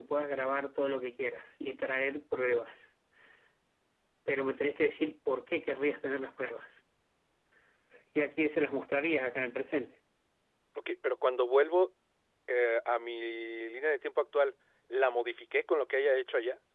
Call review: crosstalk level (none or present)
none